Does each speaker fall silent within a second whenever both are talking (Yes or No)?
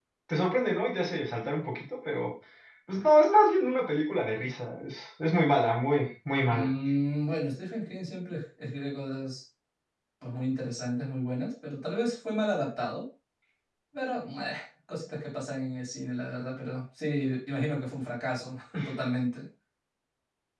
Yes